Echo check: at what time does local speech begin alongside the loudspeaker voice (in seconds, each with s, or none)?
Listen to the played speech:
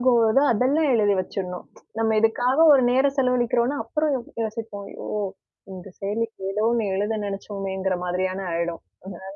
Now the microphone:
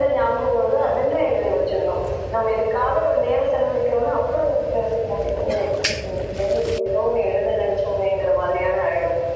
none